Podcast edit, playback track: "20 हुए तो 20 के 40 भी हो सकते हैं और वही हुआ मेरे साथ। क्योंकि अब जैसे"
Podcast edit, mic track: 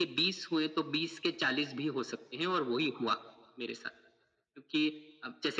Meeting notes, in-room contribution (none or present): none